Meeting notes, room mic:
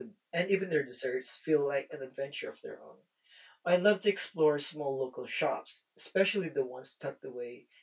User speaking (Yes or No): Yes